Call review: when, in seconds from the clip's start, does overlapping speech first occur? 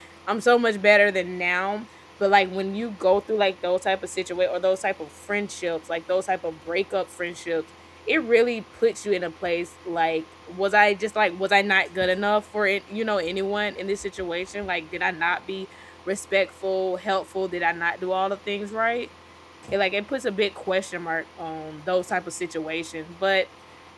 none

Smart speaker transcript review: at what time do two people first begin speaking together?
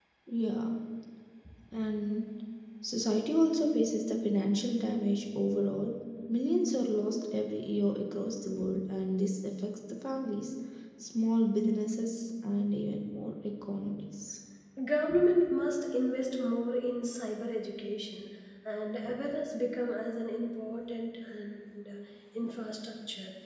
none

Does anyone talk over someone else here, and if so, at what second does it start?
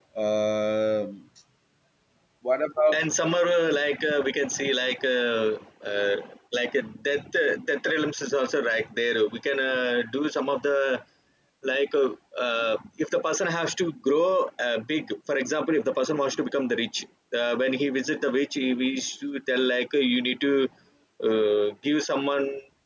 none

